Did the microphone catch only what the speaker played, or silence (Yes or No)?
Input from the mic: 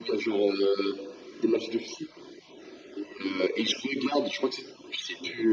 Yes